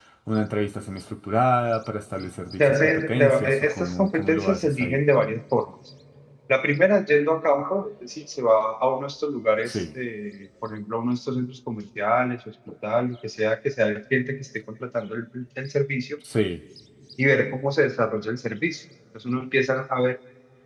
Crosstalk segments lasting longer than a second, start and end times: 2.6-5.0

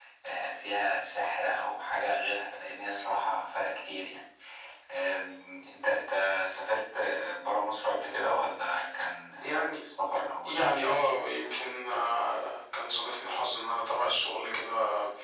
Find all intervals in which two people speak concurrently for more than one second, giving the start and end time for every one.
none

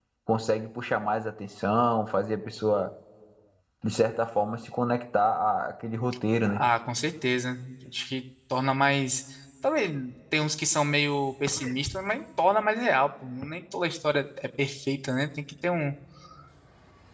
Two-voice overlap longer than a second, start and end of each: none

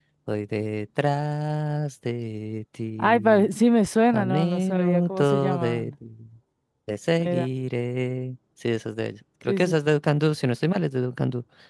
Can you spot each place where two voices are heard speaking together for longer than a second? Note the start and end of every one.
4.1-5.9

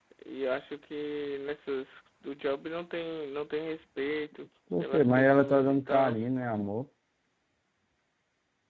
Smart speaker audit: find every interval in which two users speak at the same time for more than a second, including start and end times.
4.8-6.2

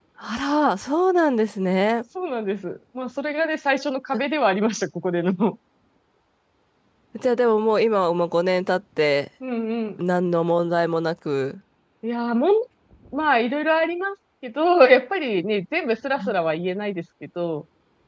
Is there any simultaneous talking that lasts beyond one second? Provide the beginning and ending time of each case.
none

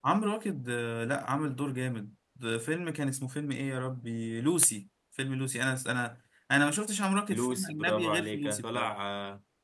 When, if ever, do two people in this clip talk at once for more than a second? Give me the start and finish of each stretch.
7.3-8.9

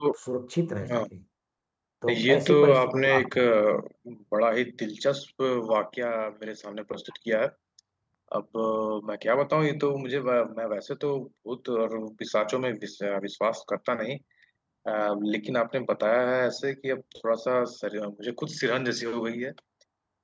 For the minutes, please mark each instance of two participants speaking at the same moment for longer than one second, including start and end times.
2.1-3.4

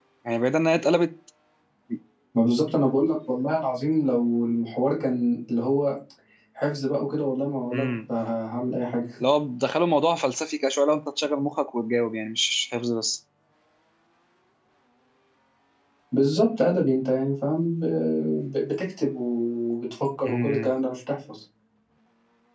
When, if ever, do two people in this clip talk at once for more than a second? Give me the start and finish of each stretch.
none

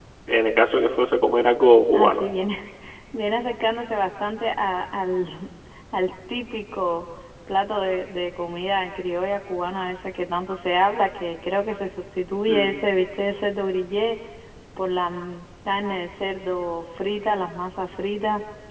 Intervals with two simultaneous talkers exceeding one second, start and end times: none

